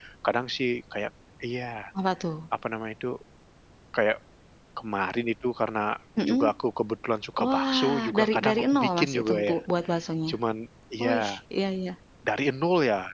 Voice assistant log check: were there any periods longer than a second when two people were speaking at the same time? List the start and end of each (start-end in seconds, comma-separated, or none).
7.4-9.6